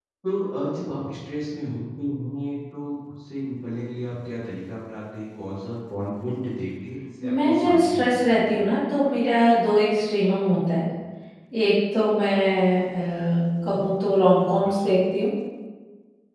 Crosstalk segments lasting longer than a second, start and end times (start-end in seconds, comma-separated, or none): 7.2-8.6